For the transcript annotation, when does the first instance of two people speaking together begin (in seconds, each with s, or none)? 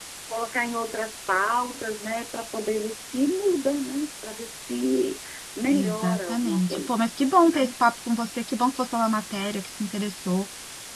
5.7 s